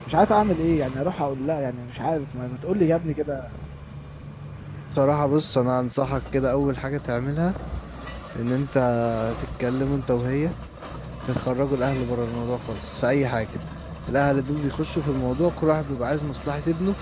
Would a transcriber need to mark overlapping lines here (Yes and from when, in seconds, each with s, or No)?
No